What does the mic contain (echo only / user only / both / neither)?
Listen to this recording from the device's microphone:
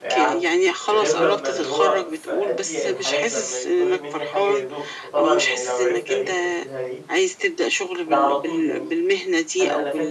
both